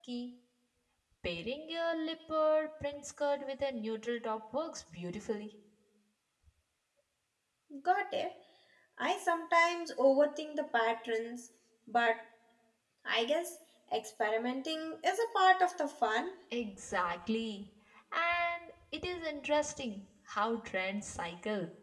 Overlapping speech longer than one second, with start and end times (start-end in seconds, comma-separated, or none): none